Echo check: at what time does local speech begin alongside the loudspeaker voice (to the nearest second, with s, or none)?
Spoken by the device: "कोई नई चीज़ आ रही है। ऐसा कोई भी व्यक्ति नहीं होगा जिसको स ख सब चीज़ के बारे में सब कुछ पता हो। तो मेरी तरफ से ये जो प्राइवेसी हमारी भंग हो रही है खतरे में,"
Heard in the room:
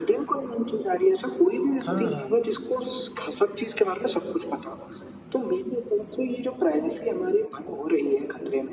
2 s